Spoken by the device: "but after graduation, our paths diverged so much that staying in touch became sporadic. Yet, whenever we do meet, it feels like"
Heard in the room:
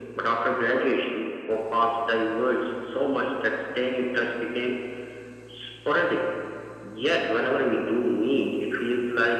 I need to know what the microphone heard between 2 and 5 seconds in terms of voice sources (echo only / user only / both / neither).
echo only